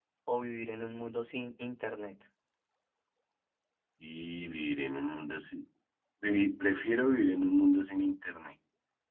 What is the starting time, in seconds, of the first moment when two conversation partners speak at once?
none

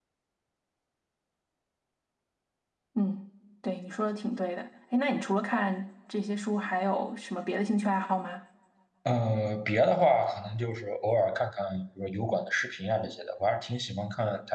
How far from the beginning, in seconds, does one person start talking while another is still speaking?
none

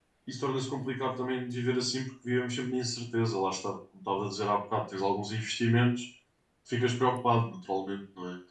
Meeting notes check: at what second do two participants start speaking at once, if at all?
none

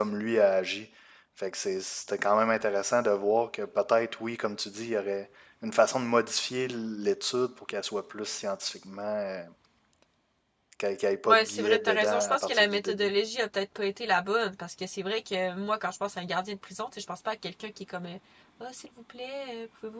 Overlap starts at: 11.2 s

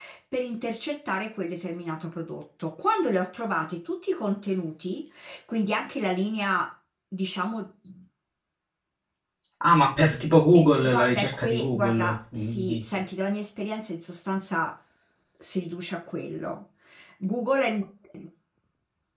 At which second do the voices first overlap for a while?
10.5 s

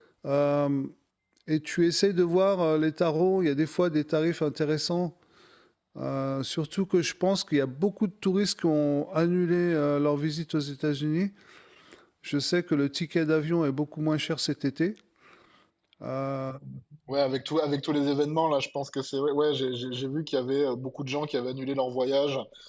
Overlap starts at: none

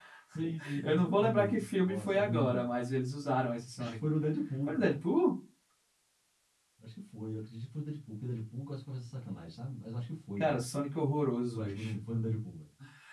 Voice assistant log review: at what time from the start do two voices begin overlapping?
0.8 s

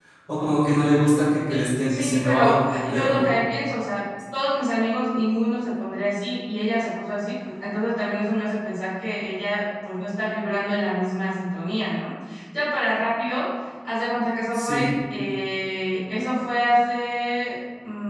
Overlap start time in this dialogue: 1.5 s

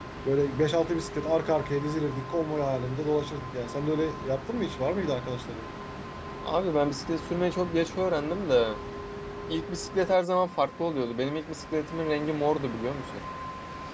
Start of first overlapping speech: none

